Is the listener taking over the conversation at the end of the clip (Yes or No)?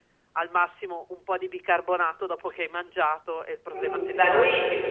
Yes